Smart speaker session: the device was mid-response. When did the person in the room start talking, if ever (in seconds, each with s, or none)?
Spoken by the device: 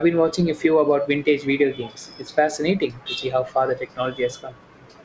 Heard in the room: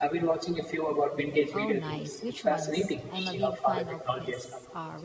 1.5 s